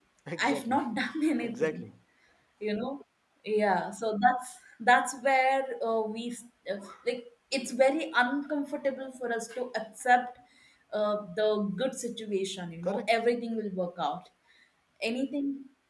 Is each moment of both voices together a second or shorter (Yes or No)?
Yes